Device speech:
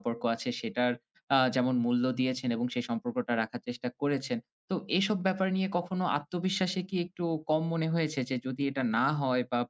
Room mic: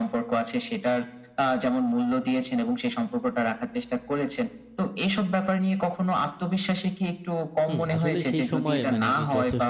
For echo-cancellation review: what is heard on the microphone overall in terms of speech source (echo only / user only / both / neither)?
both